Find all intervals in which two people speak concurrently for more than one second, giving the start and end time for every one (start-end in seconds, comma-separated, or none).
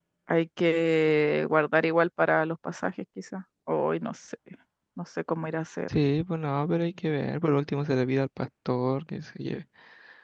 none